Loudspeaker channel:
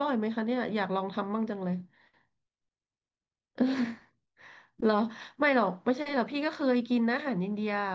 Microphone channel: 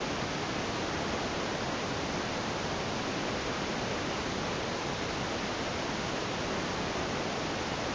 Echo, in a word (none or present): none